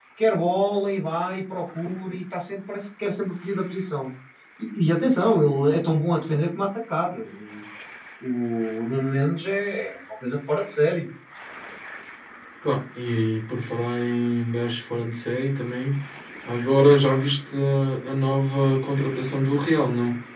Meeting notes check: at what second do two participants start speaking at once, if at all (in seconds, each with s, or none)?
none